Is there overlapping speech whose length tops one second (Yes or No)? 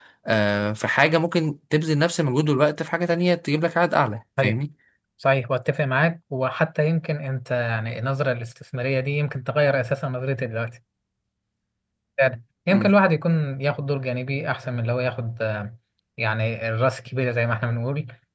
No